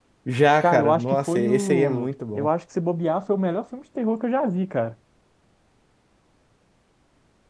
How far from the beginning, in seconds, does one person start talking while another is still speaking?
0.6 s

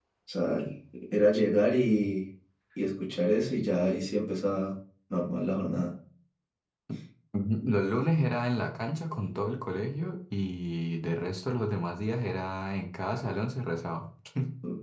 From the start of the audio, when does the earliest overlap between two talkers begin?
none

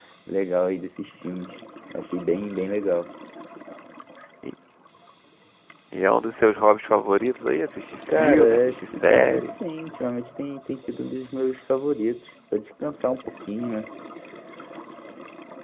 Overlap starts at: 8.1 s

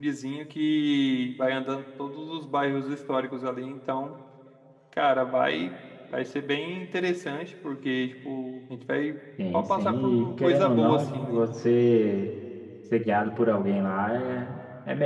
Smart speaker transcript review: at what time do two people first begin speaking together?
9.5 s

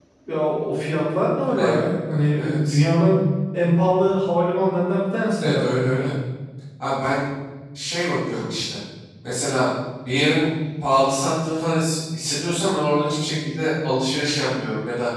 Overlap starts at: 1.6 s

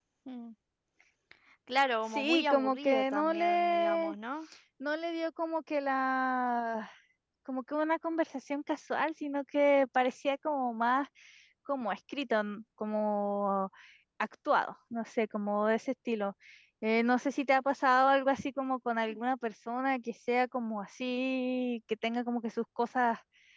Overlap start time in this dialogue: 2.1 s

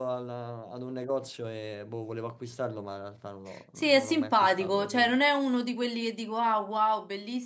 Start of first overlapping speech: 3.8 s

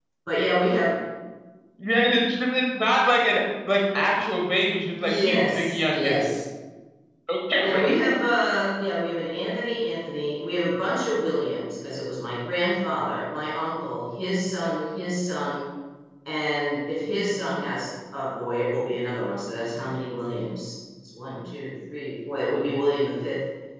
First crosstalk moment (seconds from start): 5.0 s

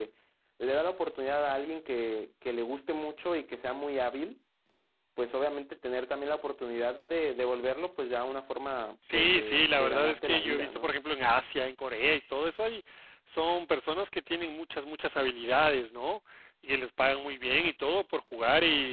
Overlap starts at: 9.0 s

